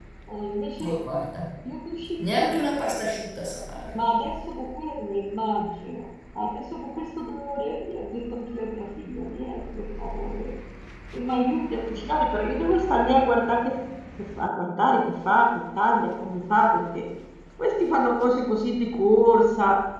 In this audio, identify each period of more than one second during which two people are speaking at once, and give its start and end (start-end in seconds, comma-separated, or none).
none